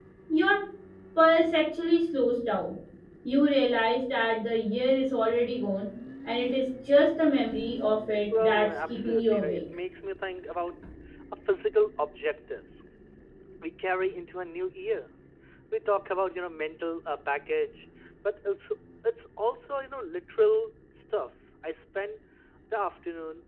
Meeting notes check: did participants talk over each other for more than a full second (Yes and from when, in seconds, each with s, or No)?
Yes, from 8.3 s